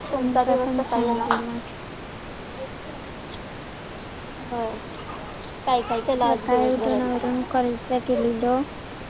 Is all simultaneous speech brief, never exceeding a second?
No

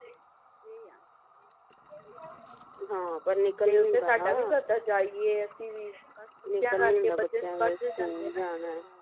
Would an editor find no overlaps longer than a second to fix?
No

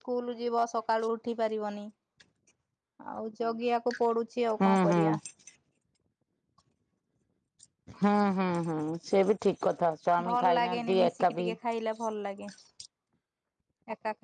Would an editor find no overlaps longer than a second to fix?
No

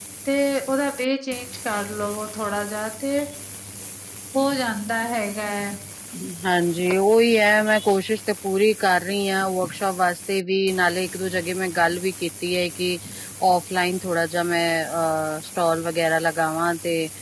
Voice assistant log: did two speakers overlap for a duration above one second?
No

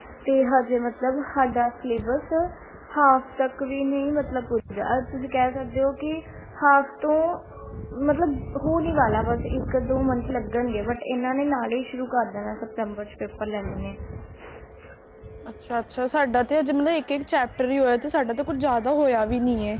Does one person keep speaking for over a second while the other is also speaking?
No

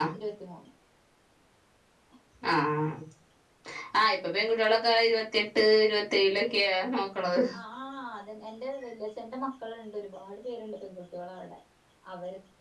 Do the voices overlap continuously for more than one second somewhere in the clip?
No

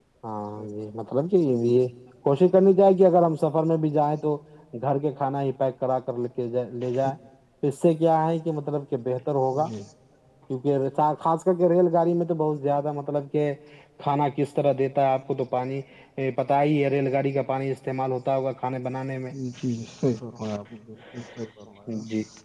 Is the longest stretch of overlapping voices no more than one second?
Yes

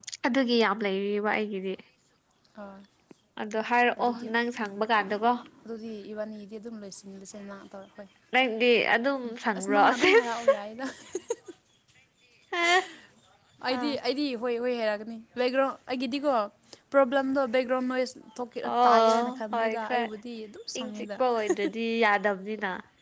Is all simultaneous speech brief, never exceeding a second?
No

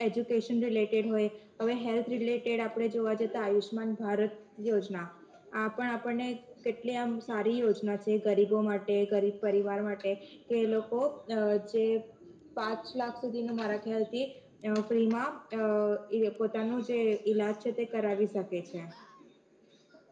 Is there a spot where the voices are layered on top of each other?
No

